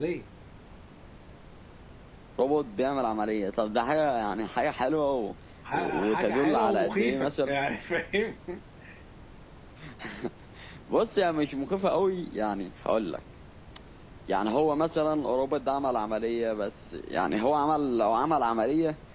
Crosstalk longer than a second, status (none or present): present